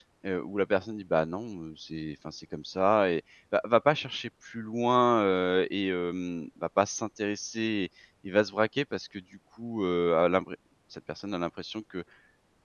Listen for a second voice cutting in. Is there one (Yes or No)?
No